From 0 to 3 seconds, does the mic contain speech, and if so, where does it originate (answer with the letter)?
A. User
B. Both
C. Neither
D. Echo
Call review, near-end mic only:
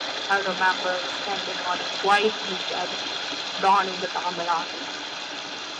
D